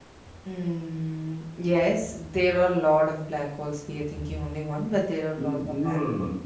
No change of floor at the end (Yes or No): No